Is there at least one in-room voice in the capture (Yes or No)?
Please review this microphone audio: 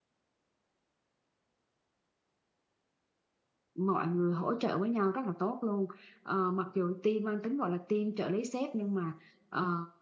Yes